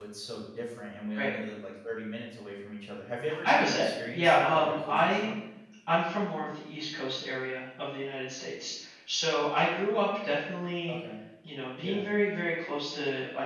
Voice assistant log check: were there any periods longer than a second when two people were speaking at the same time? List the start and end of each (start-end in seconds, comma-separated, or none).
3.4-5.3